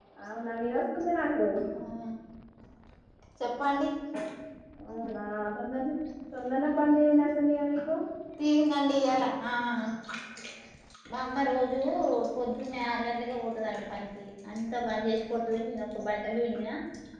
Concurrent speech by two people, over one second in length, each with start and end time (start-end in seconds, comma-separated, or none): none